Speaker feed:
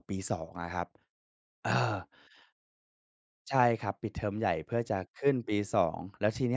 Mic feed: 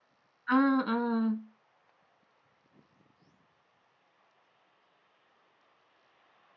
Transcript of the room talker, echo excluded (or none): อา เออ